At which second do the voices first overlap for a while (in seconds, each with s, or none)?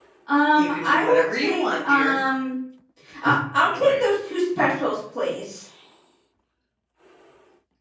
0.5 s